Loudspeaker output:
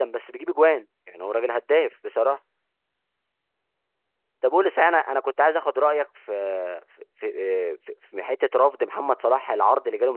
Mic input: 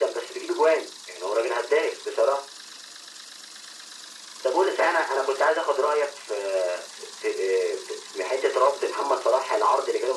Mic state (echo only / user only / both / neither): echo only